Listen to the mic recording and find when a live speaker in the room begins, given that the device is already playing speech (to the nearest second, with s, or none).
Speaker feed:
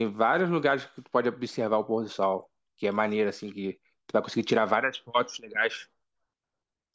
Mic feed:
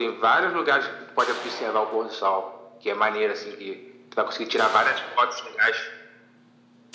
none